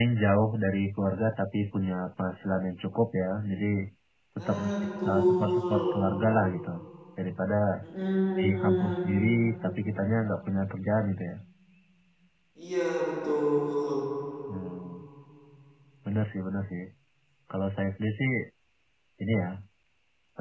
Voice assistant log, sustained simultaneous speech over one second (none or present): present